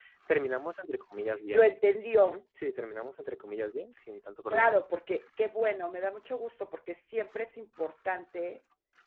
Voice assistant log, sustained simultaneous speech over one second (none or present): none